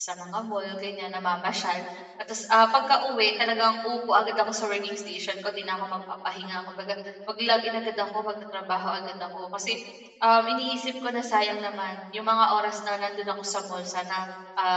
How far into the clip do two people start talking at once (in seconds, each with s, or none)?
none